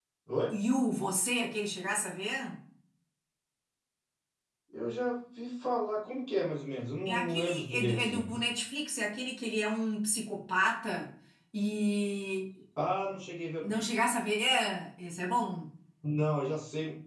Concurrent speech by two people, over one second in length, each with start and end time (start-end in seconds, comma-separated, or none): 7.0-8.3